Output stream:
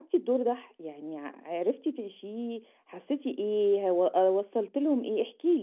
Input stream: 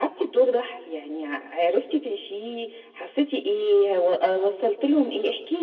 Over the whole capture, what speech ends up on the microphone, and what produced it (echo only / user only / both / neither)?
echo only